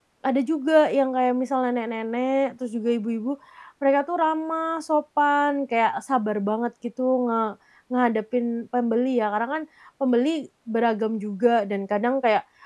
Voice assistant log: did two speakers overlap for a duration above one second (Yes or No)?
No